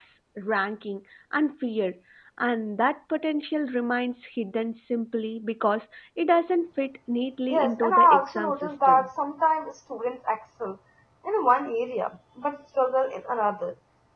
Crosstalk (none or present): present